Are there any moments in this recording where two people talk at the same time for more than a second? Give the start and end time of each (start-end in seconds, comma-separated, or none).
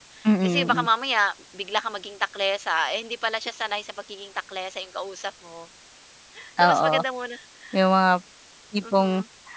none